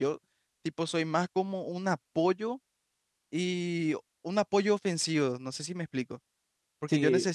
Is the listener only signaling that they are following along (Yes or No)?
Yes